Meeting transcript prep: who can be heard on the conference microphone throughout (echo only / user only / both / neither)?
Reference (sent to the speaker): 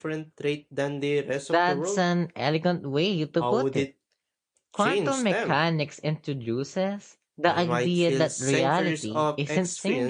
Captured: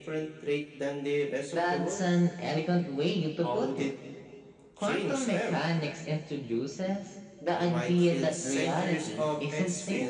echo only